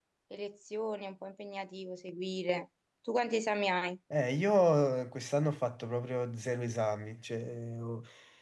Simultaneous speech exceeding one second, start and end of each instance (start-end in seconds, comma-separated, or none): none